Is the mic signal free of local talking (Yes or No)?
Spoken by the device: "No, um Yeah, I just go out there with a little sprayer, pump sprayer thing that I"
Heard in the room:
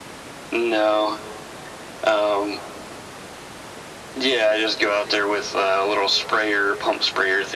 Yes